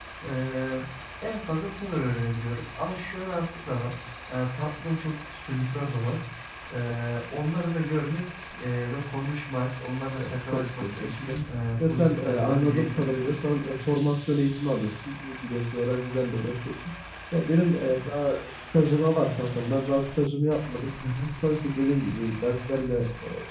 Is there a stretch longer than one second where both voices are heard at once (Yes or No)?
Yes